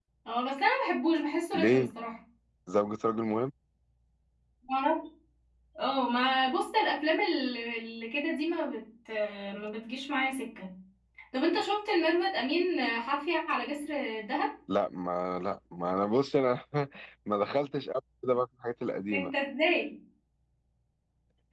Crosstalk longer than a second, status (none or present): none